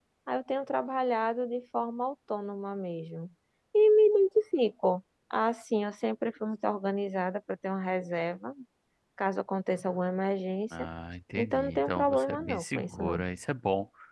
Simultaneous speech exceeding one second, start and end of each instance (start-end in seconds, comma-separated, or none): 11.3-13.2